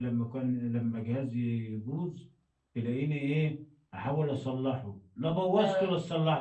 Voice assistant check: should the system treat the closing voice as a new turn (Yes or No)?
No